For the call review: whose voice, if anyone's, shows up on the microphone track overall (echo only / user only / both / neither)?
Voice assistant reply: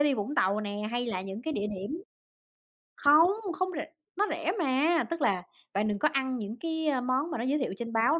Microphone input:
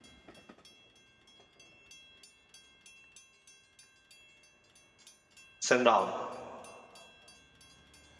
user only